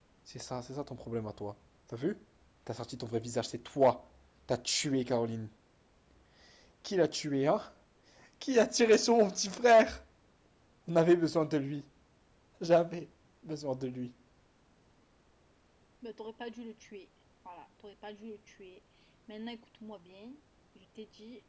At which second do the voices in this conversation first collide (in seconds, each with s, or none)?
none